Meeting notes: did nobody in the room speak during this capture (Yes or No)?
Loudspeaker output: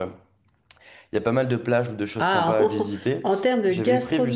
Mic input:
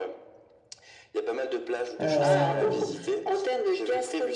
No